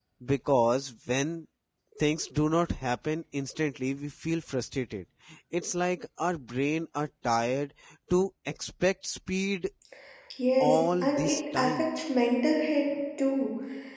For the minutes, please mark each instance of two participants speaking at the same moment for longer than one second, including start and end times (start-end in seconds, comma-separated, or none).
10.6-11.8